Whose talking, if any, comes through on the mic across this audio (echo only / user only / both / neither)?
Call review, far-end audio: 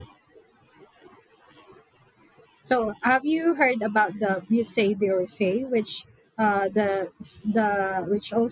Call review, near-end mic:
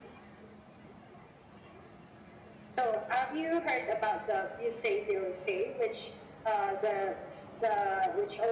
echo only